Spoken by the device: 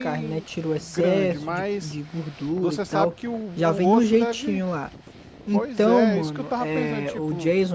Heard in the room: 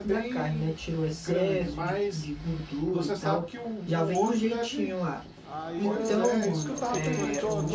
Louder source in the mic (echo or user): echo